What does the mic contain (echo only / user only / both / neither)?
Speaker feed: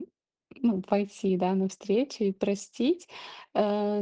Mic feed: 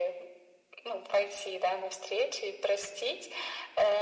echo only